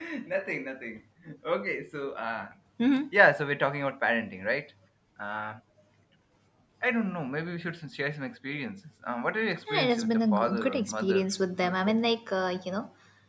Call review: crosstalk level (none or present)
present